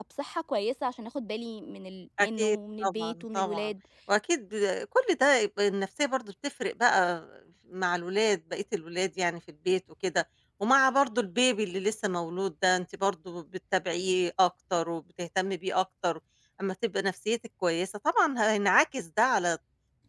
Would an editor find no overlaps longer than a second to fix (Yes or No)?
No